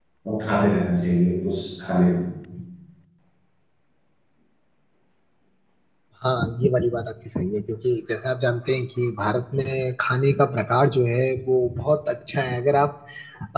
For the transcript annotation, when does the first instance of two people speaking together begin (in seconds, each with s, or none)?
none